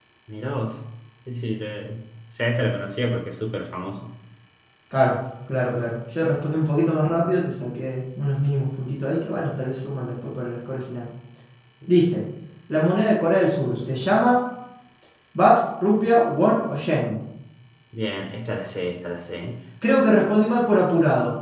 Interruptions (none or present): none